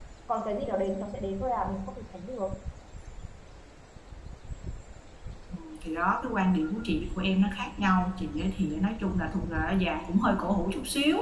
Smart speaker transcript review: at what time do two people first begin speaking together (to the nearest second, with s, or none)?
none